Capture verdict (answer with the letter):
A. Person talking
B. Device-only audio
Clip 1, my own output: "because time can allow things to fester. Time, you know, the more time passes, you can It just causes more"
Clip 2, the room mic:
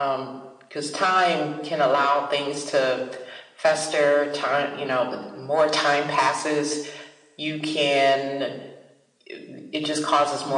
B